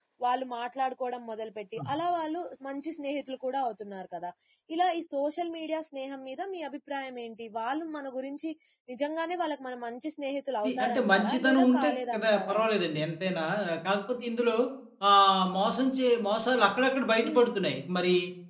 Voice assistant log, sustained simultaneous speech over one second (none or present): present